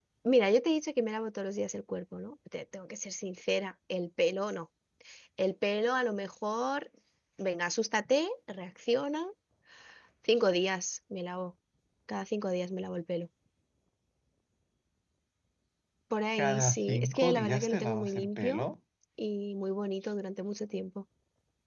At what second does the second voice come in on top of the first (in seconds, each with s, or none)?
16.4 s